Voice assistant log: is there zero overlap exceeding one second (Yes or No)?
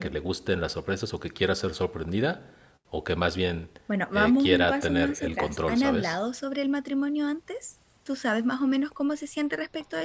No